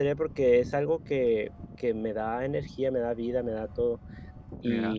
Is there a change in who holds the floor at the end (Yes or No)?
No